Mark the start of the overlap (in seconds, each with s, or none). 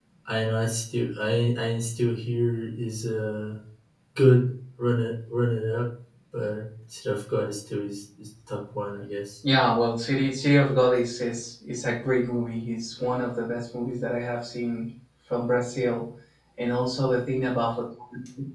none